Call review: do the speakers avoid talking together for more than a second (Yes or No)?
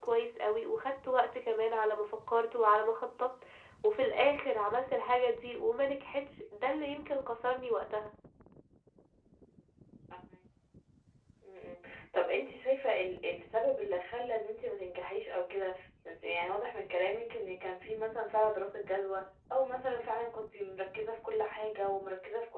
Yes